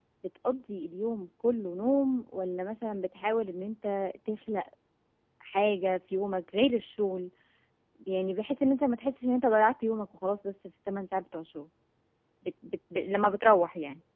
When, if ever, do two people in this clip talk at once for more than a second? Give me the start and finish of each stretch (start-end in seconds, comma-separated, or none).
none